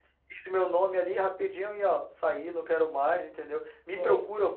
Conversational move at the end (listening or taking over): listening